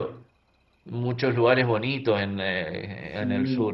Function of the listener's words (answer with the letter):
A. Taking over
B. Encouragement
A